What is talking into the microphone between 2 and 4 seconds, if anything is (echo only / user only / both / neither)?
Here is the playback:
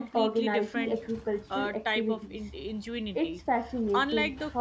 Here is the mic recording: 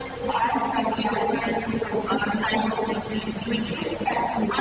echo only